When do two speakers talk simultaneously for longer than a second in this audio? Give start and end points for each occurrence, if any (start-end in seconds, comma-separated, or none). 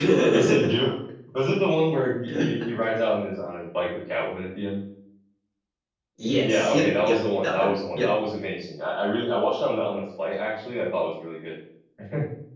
6.4-8.1